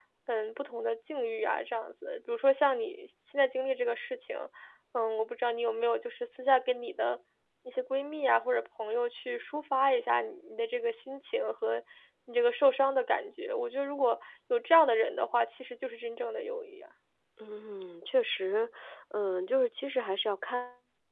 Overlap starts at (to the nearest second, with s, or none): none